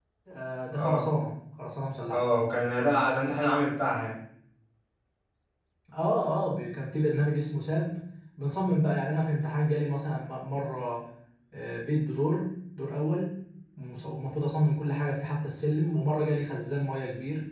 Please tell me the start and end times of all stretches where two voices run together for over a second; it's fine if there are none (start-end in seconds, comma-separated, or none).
none